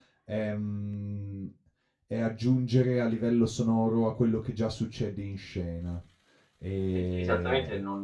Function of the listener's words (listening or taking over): taking over